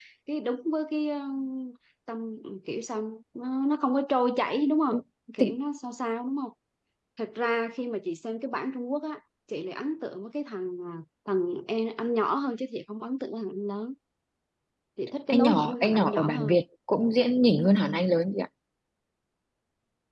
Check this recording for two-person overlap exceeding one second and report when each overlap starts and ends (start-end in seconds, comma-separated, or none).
15.3-16.6